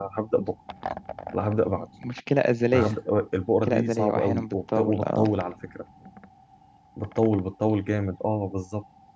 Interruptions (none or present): present